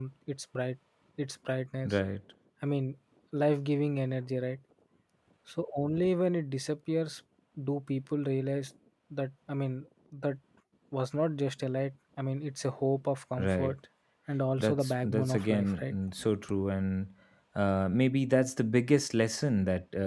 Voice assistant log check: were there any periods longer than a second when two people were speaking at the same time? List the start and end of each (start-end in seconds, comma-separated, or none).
14.6-15.9